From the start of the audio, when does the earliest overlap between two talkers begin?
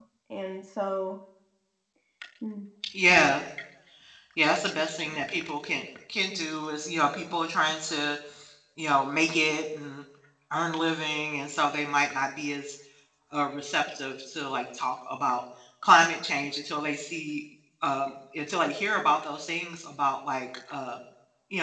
none

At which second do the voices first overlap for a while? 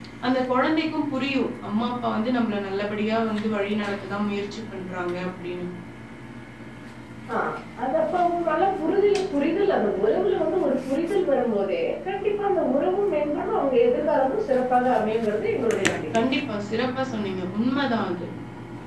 none

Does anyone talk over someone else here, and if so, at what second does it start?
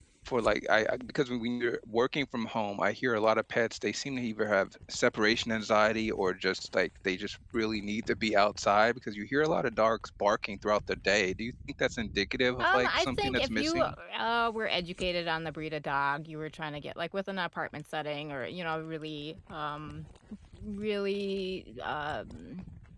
13 s

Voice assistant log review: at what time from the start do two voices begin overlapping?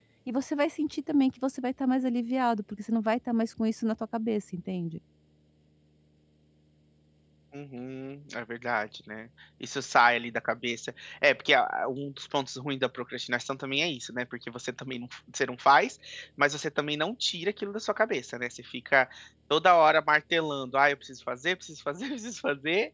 none

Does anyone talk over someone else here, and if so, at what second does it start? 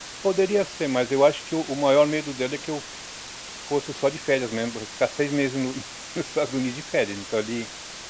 none

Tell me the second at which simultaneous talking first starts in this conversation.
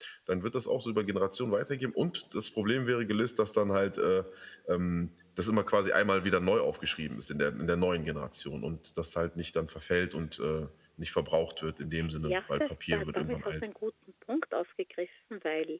12 s

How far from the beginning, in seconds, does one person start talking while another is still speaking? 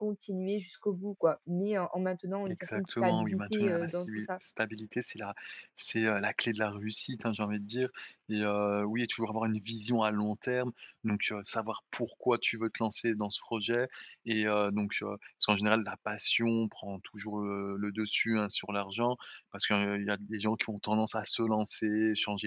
2 s

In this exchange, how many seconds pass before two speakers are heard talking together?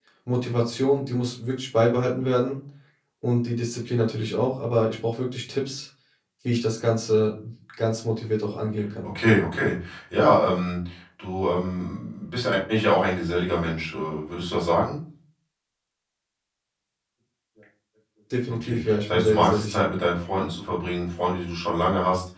18 s

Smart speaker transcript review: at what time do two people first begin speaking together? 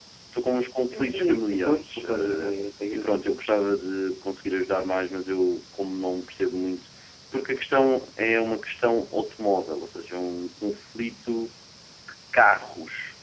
1 s

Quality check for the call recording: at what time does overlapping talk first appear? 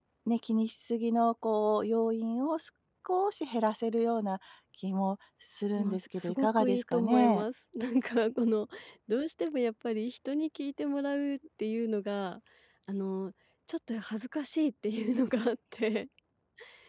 6 s

